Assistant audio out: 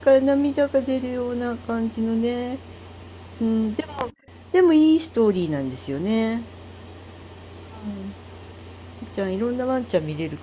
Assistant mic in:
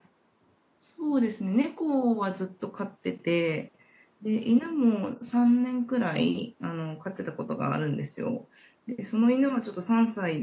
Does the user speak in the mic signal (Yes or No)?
Yes